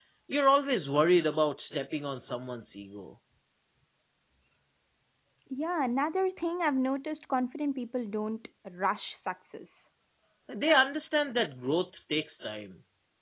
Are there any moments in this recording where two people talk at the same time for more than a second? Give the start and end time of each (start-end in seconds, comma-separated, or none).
none